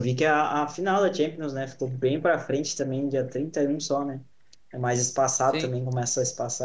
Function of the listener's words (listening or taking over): listening